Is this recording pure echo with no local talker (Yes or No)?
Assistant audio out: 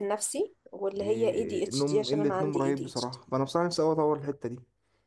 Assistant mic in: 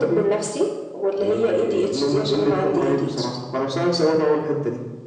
Yes